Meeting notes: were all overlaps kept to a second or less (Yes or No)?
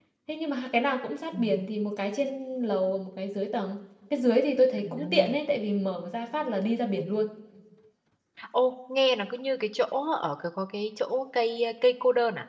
Yes